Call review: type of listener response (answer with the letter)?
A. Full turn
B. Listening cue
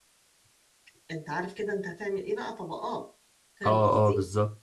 A